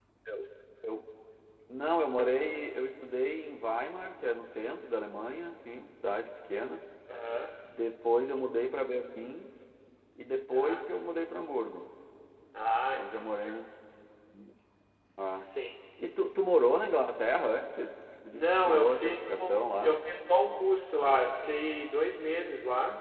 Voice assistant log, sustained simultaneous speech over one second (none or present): present